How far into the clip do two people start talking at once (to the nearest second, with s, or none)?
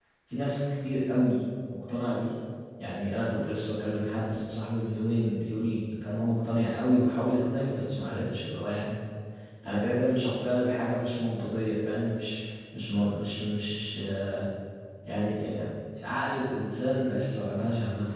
none